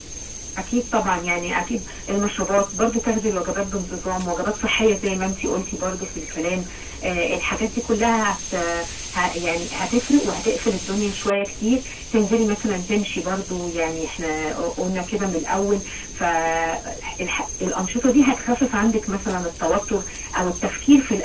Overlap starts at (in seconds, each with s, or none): none